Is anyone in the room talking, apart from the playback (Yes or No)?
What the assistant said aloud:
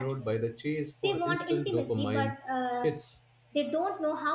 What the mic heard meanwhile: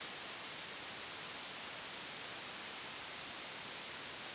No